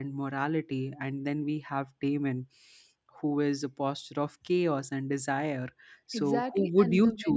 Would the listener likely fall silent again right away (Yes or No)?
No